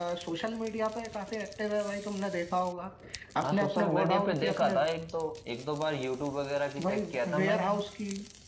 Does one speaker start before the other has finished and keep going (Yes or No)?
Yes